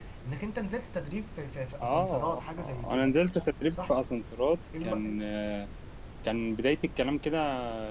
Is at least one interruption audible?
Yes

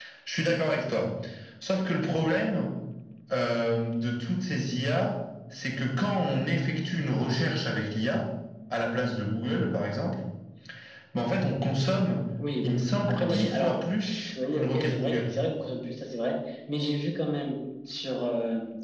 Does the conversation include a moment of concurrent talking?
Yes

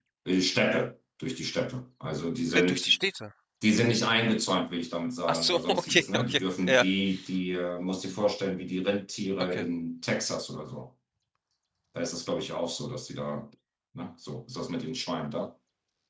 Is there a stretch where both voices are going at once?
Yes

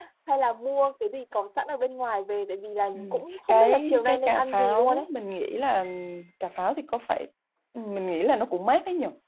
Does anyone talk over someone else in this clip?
Yes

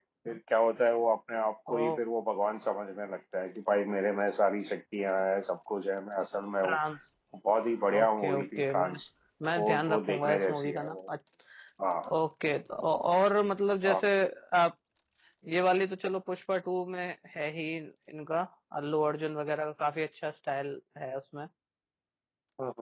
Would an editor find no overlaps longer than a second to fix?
No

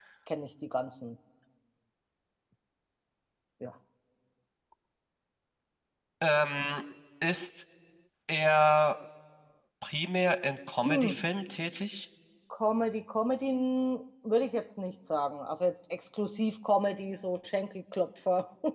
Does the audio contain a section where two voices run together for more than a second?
No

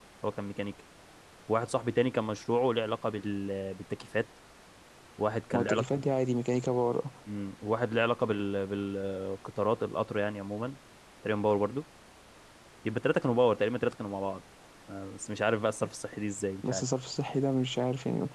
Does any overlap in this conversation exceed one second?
No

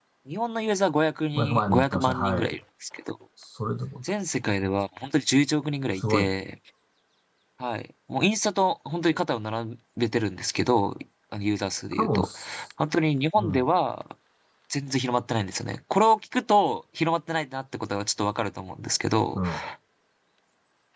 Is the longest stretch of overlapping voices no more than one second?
No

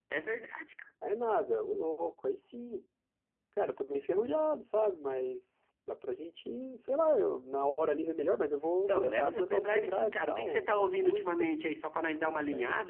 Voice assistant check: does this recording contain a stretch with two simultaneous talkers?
Yes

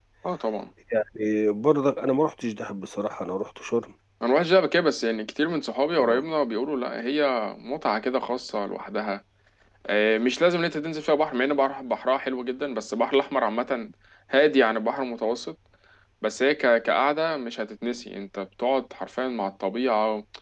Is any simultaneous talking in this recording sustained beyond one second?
No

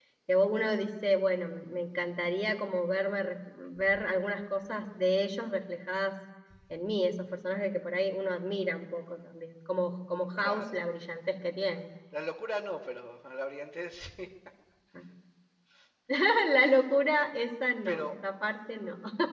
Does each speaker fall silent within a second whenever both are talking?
Yes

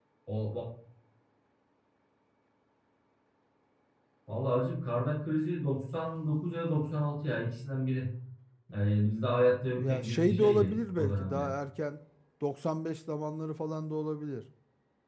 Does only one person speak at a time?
No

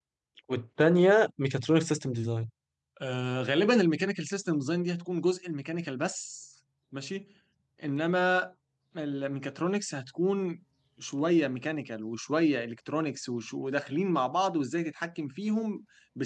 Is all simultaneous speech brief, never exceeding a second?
Yes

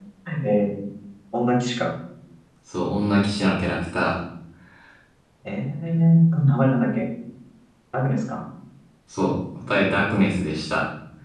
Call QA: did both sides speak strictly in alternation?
Yes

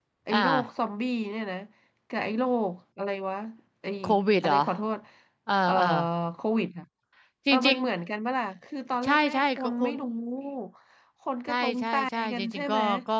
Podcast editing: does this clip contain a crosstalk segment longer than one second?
Yes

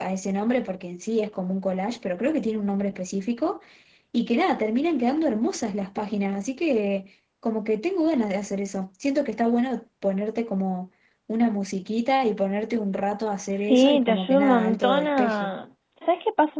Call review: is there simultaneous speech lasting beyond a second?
Yes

